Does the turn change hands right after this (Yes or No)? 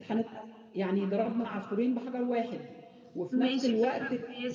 Yes